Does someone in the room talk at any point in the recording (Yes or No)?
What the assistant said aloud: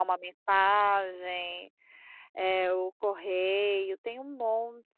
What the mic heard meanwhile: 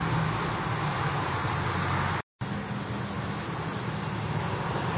No